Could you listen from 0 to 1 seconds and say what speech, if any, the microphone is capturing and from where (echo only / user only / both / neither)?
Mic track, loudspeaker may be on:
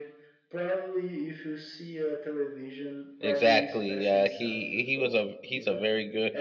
echo only